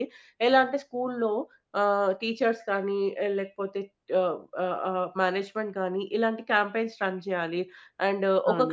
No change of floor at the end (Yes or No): No